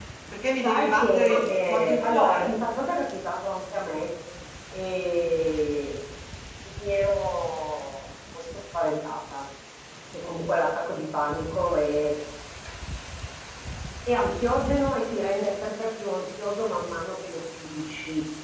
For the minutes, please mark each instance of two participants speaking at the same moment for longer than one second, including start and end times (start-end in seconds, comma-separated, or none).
0.6-2.5